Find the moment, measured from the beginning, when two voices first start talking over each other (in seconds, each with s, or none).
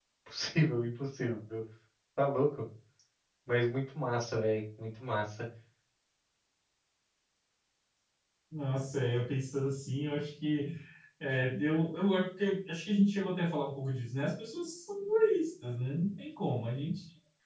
none